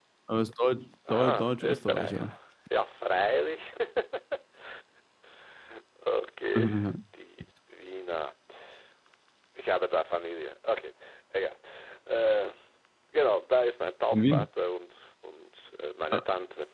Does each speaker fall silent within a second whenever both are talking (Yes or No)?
No